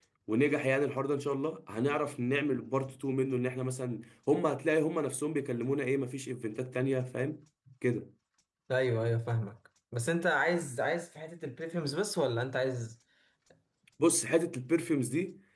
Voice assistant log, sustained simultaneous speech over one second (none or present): none